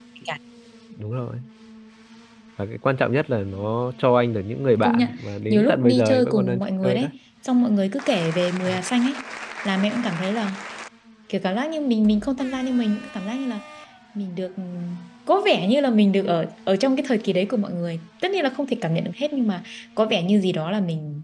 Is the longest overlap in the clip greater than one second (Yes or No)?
Yes